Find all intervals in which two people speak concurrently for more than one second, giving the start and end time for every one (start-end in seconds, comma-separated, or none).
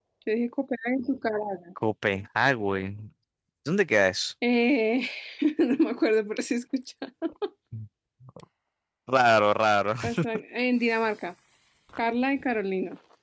none